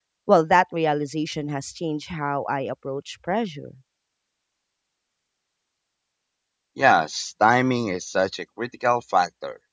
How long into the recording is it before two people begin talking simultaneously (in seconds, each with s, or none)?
none